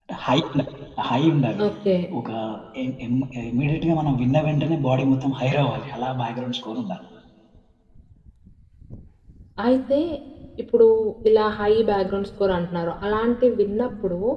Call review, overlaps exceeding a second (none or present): none